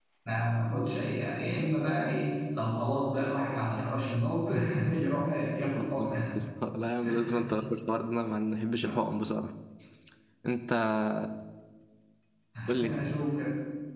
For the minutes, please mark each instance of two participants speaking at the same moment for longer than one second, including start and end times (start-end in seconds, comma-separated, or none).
none